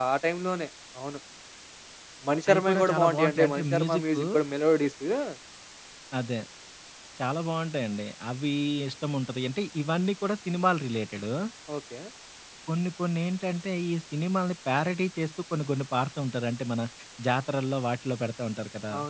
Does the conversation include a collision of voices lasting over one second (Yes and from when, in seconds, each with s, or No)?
Yes, from 2.5 s